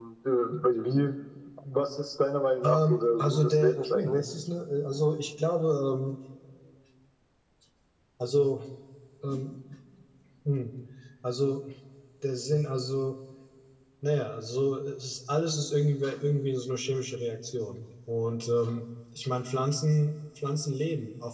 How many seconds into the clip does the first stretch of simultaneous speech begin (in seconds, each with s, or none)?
2.6 s